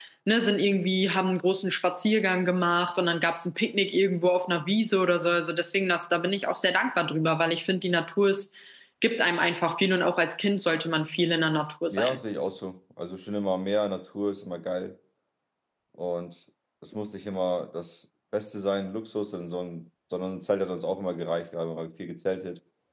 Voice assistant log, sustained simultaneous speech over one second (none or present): none